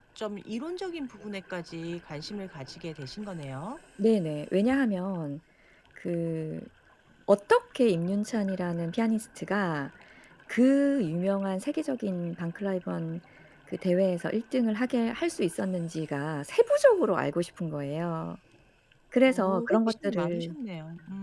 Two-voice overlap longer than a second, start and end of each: 19.3-20.6

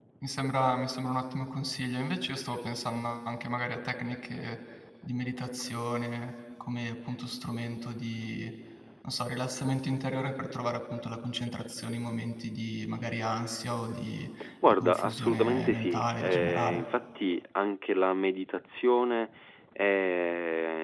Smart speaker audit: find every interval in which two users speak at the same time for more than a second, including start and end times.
14.7-16.8

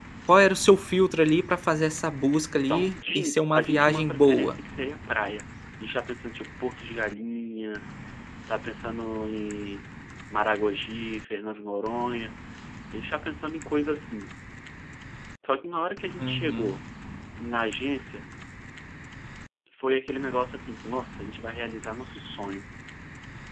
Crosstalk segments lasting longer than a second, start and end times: 2.7-4.6

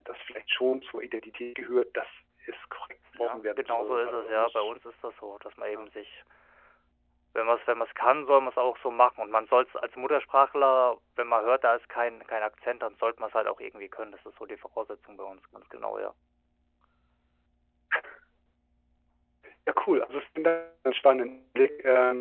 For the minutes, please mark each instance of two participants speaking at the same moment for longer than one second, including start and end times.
3.2-4.7

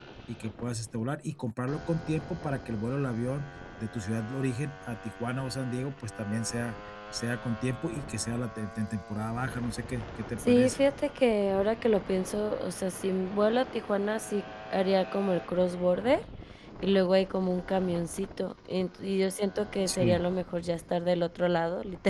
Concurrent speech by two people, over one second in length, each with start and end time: none

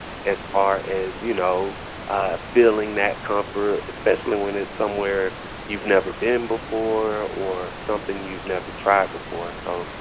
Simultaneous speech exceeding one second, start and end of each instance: none

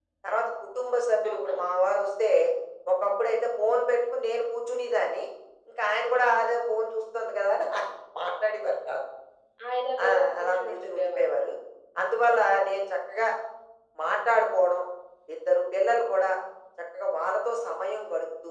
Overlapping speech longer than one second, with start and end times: 10.1-11.3

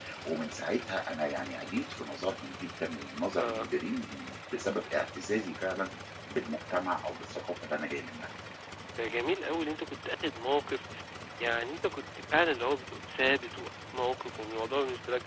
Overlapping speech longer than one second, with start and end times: none

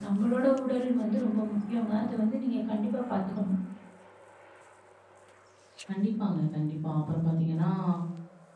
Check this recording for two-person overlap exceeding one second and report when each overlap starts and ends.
none

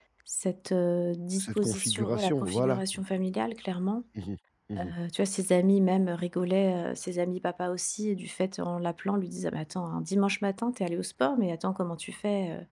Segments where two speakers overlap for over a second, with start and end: 1.4-2.8

